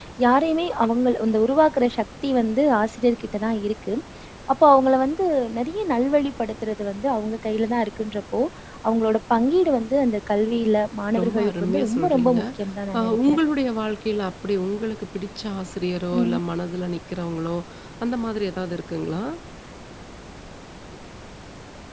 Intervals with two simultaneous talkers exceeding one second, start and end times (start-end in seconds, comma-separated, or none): 11.2-12.4